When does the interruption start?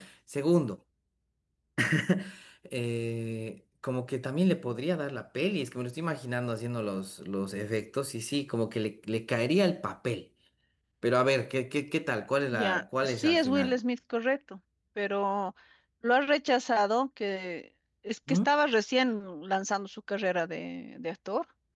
12.5 s

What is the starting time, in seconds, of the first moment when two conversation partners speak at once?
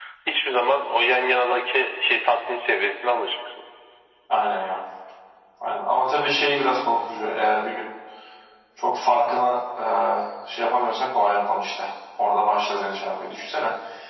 none

